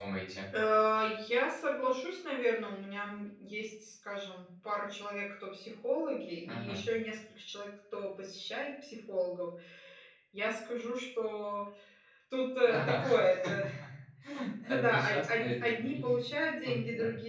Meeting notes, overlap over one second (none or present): present